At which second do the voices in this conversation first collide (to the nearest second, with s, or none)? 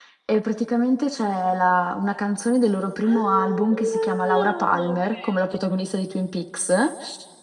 3 s